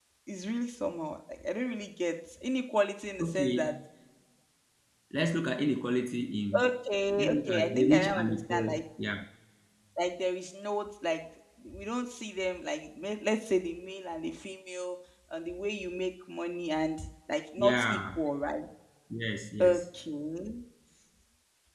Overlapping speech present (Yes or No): Yes